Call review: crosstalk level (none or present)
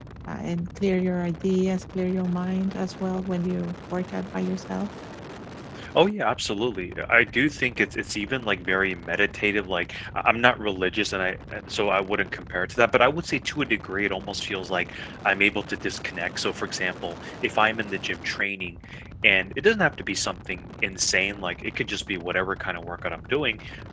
none